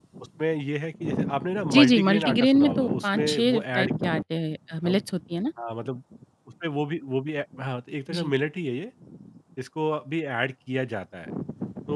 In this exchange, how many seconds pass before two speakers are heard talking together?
1.7 s

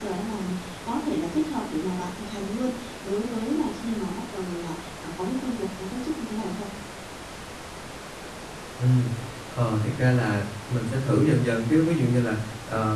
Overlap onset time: none

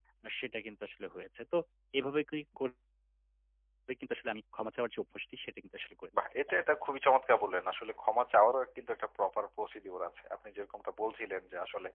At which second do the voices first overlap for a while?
none

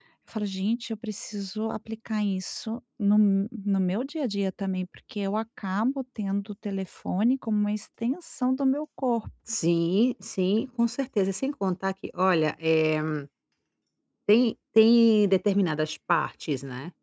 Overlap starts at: none

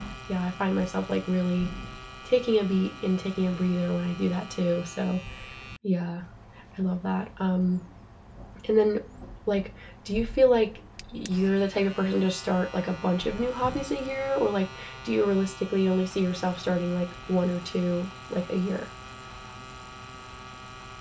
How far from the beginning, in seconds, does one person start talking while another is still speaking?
none

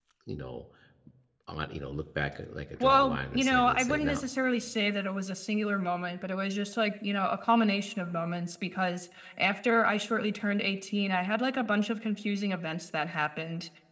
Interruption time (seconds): 2.8 s

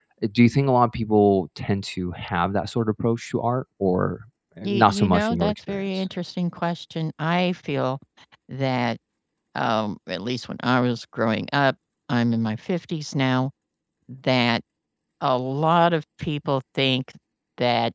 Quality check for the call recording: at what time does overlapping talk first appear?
4.6 s

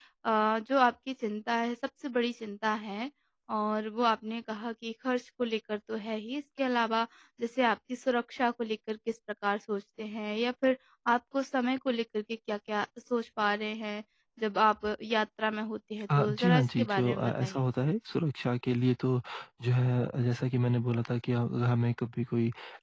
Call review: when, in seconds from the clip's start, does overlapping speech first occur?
16.1 s

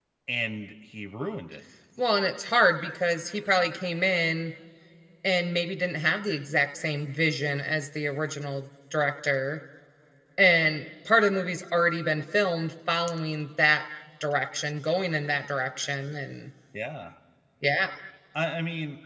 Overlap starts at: none

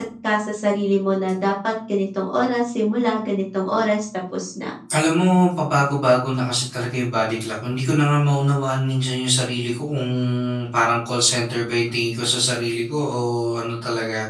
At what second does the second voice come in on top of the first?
none

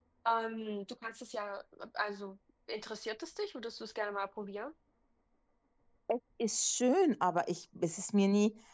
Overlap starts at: none

